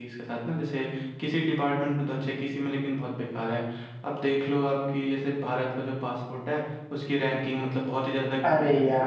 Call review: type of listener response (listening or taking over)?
taking over